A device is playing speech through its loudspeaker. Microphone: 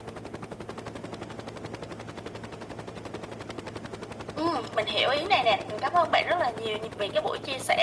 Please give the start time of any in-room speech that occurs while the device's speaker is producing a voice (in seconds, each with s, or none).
none